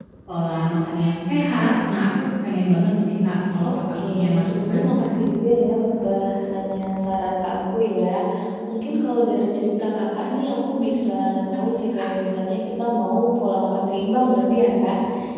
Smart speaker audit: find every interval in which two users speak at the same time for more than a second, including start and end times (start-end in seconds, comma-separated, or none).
3.6-4.9